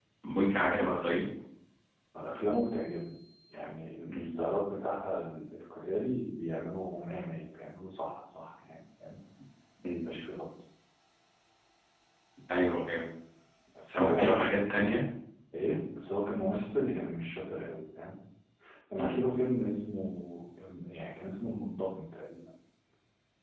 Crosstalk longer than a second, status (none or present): none